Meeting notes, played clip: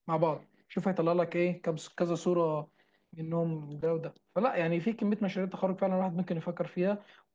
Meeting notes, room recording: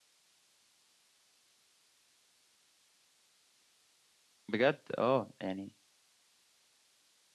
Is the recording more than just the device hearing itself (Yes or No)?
Yes